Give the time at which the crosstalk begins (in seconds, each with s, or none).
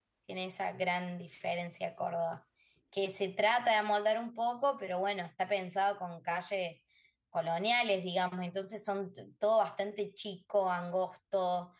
none